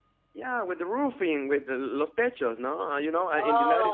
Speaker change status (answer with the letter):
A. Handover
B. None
B